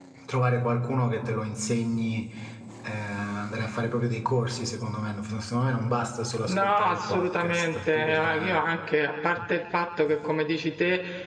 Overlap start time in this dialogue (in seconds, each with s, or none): 6.5 s